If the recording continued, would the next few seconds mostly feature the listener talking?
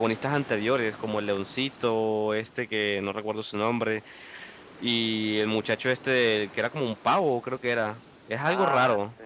Yes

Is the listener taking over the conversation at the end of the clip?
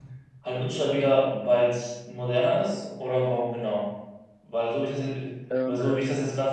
No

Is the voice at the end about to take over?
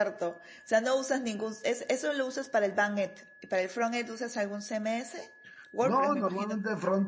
Yes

